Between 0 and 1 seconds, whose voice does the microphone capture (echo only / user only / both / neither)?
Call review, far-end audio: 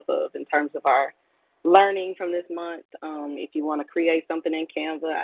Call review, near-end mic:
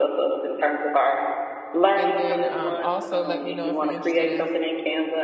echo only